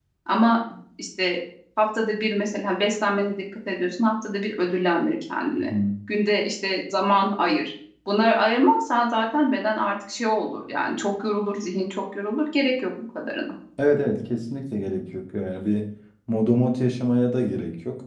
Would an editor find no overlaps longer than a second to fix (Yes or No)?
Yes